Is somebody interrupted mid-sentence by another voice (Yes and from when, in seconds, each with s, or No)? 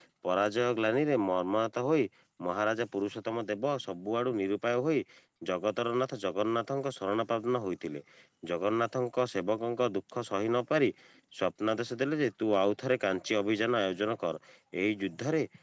No